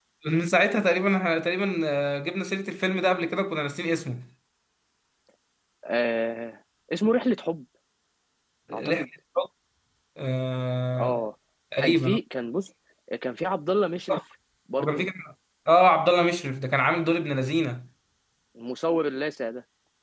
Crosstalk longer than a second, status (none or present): none